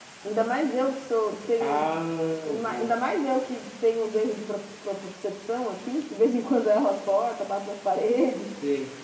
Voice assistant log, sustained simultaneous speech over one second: none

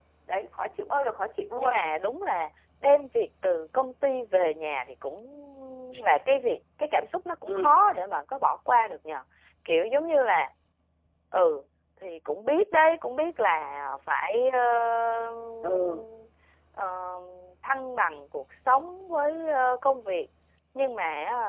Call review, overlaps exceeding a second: none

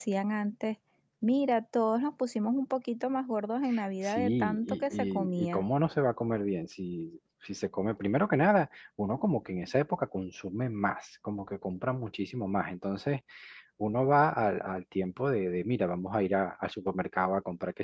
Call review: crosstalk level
present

